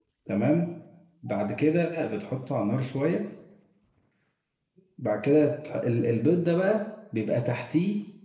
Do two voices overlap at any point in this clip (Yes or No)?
No